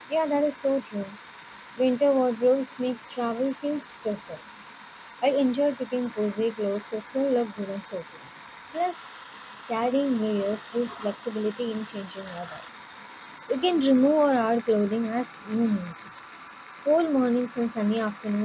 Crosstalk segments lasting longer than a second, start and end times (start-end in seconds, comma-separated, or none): none